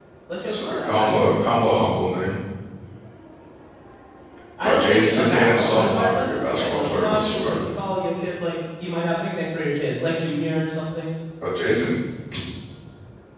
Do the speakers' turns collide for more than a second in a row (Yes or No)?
Yes